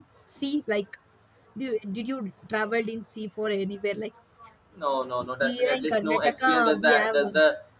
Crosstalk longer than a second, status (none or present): present